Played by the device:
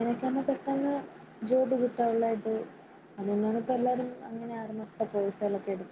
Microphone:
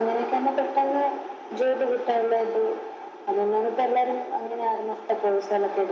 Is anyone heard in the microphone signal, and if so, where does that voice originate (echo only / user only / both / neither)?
echo only